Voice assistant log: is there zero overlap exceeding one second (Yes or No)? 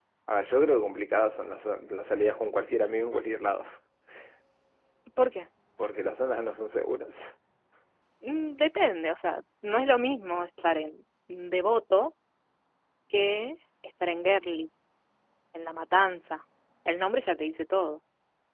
Yes